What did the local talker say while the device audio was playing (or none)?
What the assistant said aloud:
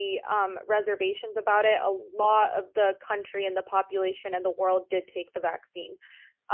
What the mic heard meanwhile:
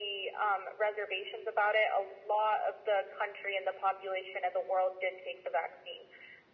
none